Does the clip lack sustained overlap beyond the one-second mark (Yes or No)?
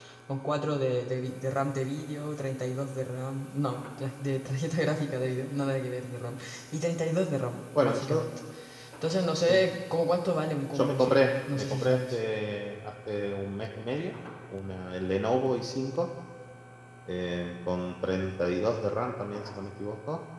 No